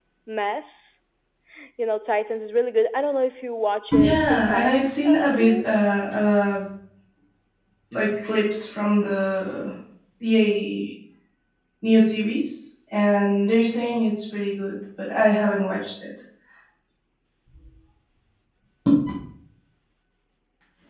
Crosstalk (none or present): present